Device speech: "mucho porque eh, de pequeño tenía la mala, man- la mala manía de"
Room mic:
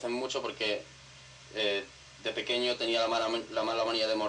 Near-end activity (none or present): none